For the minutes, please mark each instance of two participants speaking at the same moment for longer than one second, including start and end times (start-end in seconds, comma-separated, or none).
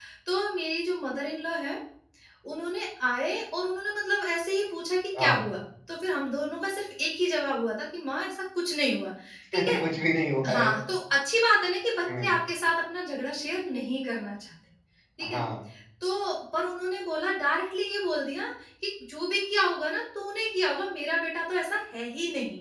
none